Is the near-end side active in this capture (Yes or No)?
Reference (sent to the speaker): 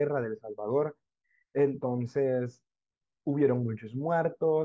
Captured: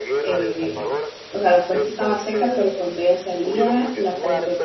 Yes